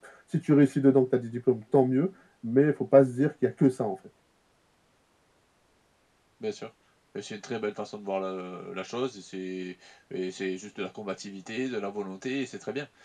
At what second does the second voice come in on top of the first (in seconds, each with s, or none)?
none